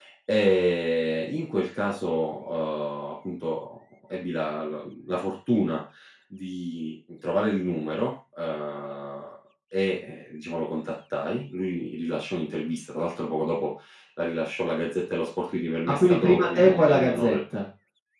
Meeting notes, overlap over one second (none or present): present